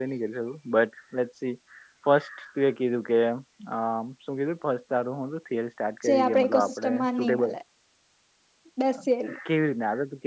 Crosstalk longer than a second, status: present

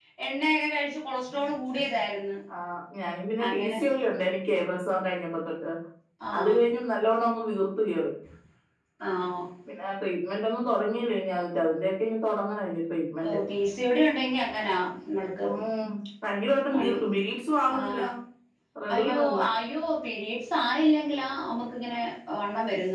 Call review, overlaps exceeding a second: none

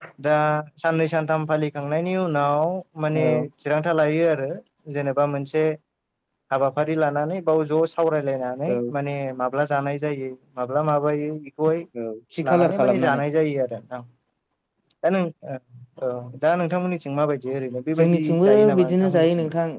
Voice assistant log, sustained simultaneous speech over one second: present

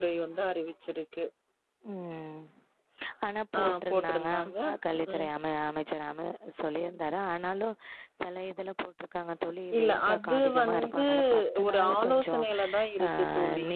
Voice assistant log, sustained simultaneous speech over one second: present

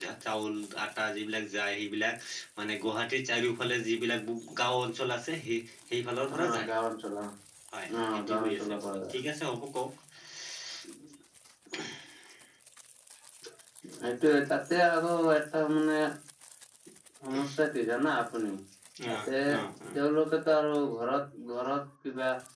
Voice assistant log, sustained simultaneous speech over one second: present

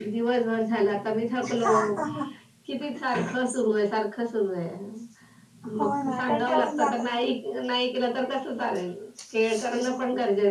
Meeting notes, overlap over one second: present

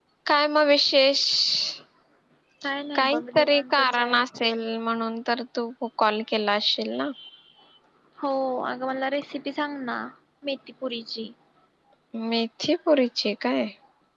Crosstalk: present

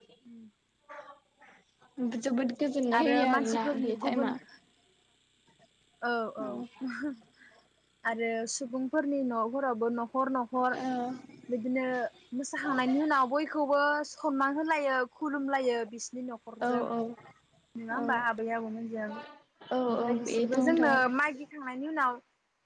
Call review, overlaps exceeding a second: present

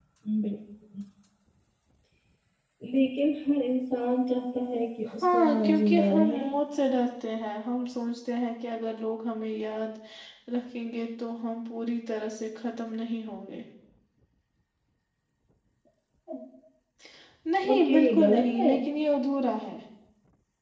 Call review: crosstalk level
present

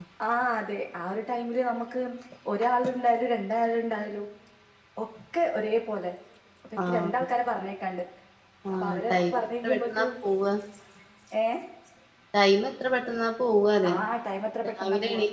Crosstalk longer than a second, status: present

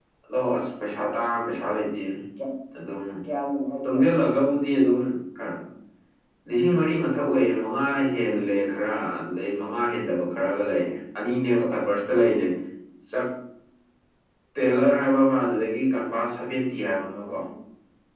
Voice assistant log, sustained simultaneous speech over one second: none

